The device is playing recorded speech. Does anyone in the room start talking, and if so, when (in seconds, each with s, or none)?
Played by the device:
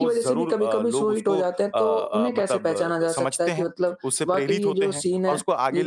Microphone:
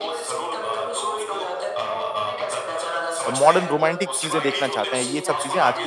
3.3 s